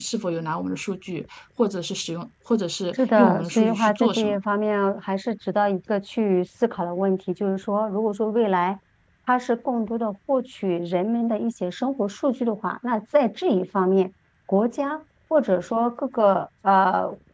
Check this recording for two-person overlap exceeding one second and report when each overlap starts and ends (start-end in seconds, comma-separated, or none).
3.2-4.4